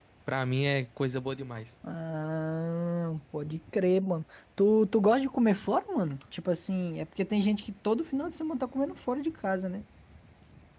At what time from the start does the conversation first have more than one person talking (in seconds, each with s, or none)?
none